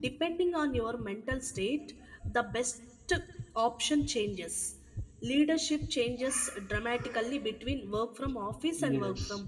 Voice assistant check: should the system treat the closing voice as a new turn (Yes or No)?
Yes